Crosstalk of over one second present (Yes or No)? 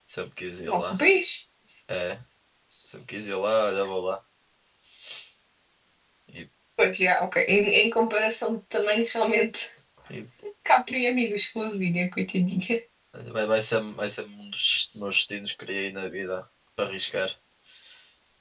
No